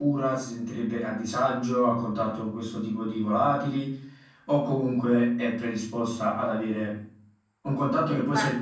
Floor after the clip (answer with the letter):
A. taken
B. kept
B